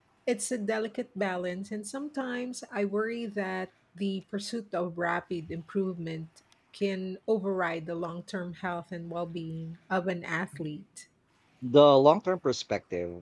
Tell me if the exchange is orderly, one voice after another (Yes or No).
Yes